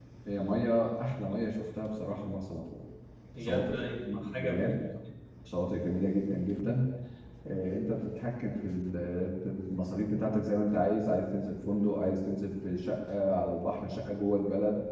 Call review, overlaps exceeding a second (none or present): present